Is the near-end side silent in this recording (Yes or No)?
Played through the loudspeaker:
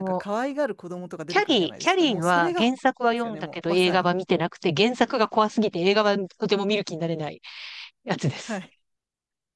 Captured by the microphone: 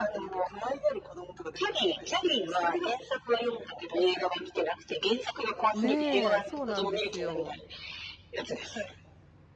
No